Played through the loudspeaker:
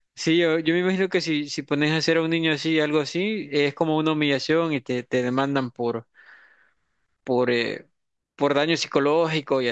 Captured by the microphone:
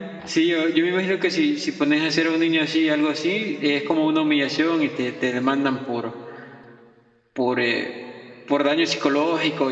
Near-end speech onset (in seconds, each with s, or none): none